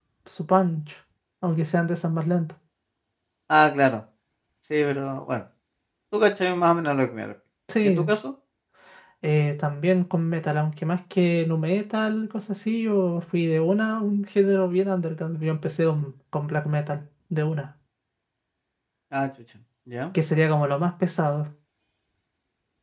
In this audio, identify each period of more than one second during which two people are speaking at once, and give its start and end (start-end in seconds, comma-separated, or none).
none